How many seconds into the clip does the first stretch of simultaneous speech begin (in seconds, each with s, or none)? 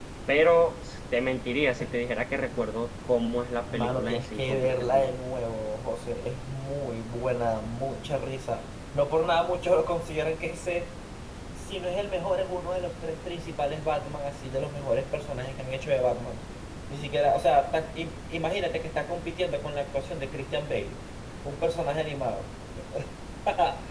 3.7 s